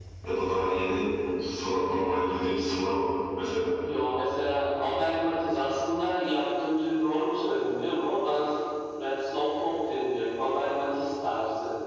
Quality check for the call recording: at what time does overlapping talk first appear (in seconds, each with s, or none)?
none